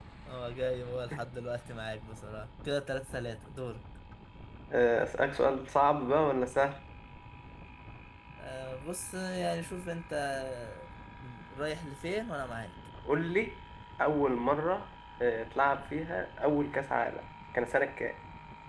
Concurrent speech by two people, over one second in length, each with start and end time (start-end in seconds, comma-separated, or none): none